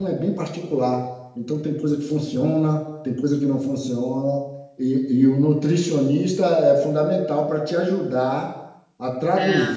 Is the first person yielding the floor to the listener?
No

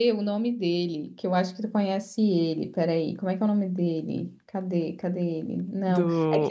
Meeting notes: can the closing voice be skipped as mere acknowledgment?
Yes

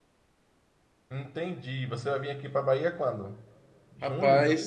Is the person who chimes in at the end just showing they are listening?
No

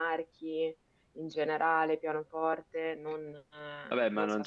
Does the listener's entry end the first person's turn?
Yes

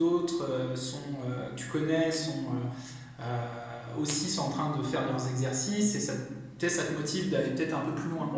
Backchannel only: No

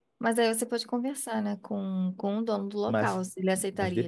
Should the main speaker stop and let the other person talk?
Yes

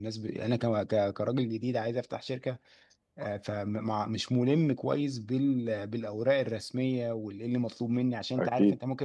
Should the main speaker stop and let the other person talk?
No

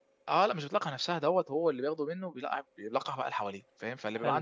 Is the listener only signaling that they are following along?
Yes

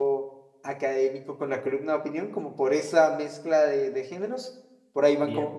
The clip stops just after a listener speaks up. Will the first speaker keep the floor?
Yes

